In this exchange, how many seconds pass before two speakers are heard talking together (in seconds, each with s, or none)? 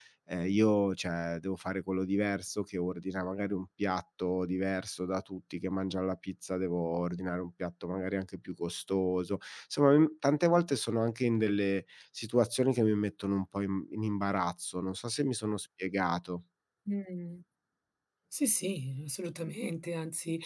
none